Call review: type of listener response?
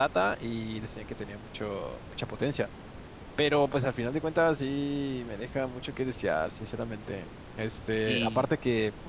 listening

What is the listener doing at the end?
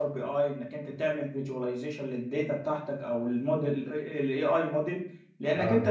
listening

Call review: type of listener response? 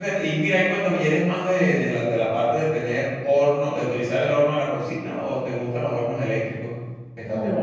taking over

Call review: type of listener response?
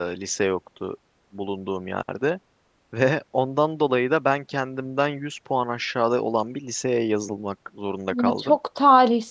taking over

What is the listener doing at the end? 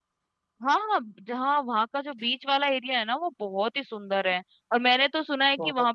listening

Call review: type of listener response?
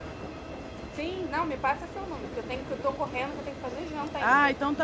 taking over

